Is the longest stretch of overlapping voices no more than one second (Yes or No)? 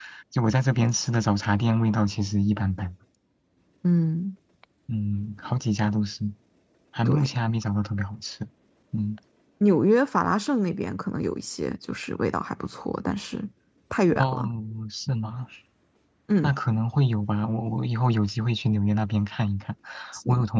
Yes